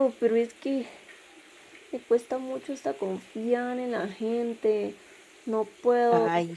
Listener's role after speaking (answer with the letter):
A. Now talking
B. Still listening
B